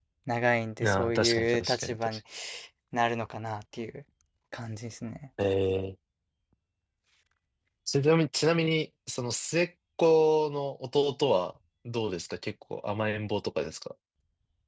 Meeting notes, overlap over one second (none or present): present